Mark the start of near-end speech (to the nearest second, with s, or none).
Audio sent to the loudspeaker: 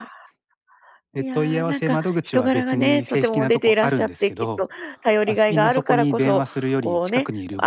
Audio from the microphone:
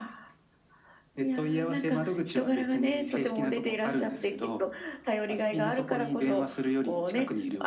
none